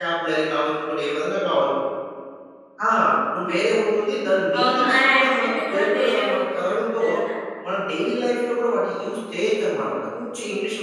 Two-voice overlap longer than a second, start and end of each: 4.6-7.0

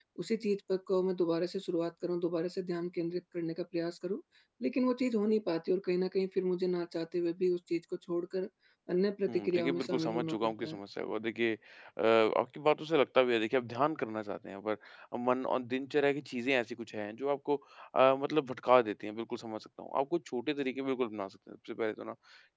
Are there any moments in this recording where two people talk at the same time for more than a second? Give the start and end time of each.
9.3-10.8

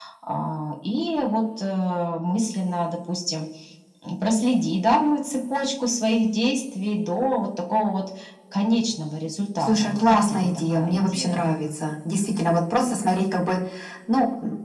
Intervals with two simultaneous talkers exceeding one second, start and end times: 9.6-11.4

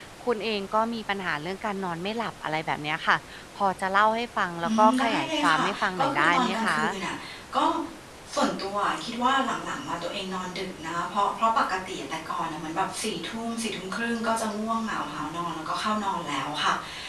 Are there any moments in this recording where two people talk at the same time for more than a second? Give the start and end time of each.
4.6-6.7

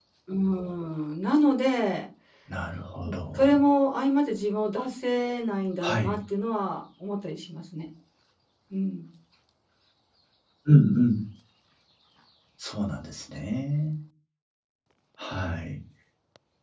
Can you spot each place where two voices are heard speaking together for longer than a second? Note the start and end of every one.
none

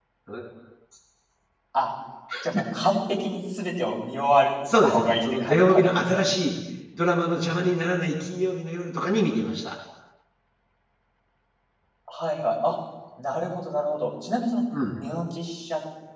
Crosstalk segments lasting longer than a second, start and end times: 4.8-6.3

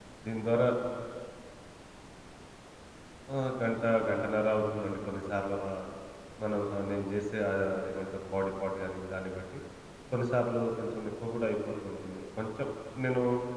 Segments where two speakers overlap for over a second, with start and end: none

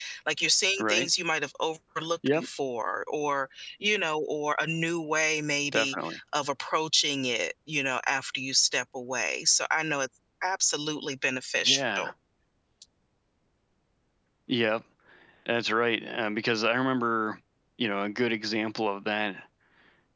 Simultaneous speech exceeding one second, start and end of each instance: none

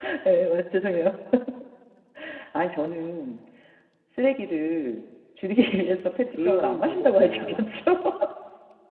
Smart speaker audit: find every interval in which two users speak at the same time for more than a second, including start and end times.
6.4-7.9

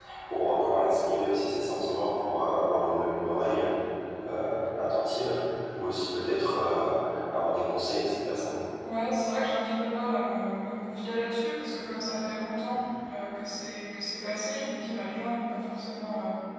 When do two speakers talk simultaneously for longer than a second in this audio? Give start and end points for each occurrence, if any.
none

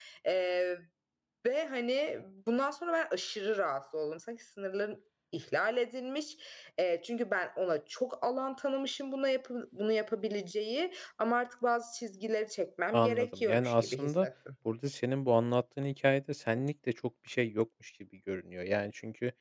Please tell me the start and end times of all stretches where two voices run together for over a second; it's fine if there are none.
12.9-14.3

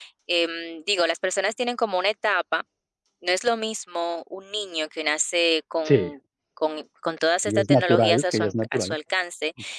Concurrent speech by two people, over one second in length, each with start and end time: 7.5-8.9

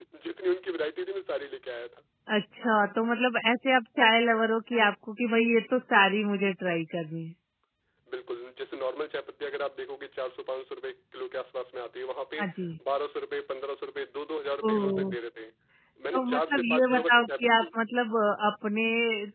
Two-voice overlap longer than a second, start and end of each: 16.1-17.8

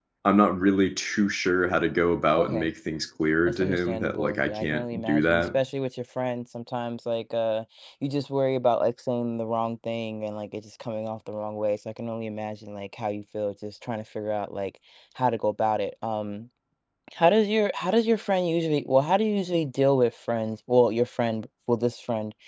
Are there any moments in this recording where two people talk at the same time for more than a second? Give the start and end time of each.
3.5-5.5

